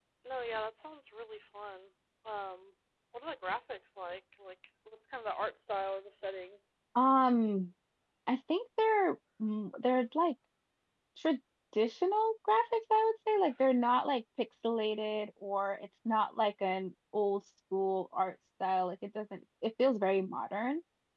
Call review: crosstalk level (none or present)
none